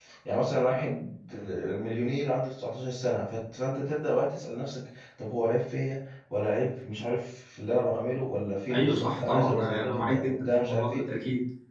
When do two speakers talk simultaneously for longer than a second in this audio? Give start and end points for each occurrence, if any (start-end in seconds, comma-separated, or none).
8.7-11.1